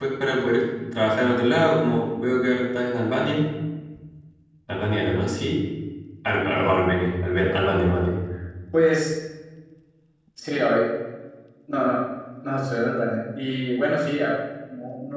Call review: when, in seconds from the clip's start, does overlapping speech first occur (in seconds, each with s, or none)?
none